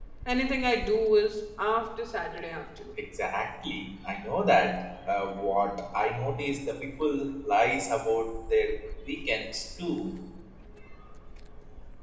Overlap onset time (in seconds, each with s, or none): none